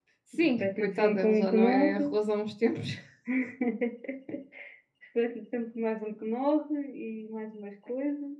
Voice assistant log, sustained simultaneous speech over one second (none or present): present